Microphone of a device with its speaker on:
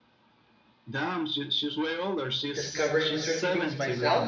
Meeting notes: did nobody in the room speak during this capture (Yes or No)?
No